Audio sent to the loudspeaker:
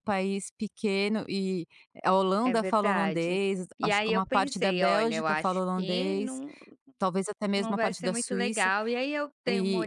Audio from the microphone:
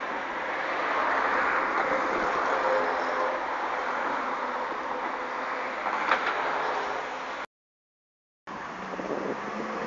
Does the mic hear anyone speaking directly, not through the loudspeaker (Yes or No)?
No